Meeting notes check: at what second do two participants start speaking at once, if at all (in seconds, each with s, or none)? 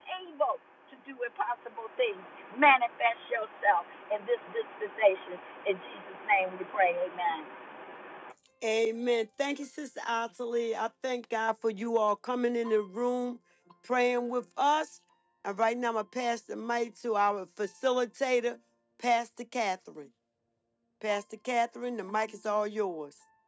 none